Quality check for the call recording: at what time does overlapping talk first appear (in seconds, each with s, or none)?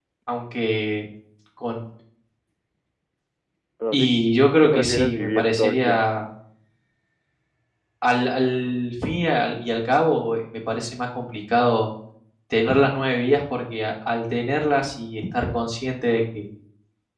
3.9 s